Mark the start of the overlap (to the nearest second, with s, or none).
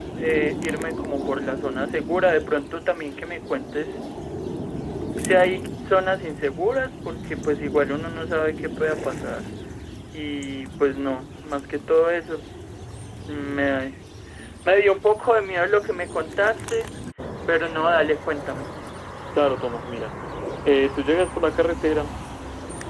none